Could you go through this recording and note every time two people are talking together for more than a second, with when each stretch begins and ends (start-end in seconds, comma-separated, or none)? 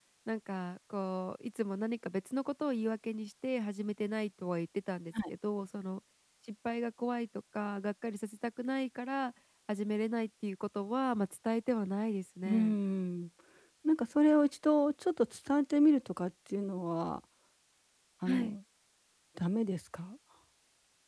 none